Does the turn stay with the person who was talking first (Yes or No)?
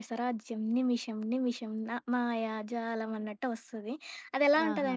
Yes